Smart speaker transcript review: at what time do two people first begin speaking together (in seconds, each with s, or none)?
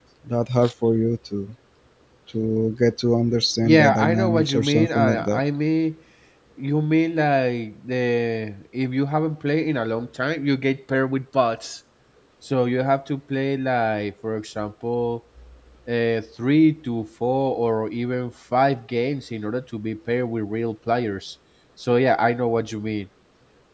3.6 s